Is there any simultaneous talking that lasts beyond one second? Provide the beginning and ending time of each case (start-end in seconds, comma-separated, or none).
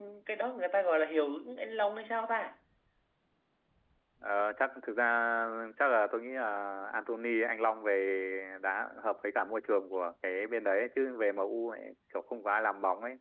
none